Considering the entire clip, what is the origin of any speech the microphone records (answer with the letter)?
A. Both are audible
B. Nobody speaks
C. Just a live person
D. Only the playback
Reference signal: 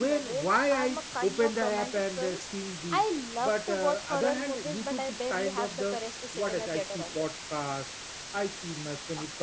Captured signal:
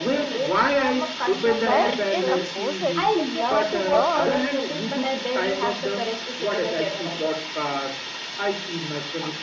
A